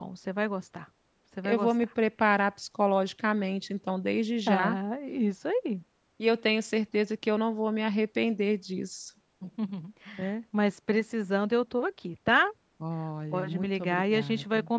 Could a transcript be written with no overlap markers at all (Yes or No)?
No